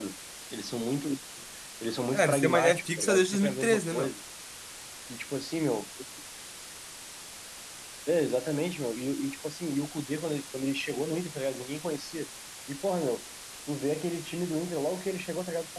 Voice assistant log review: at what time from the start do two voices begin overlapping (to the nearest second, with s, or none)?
2 s